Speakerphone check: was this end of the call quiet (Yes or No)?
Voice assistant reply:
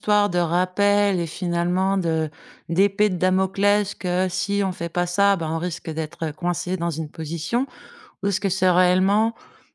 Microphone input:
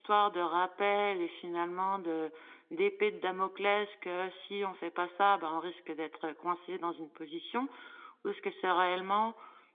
Yes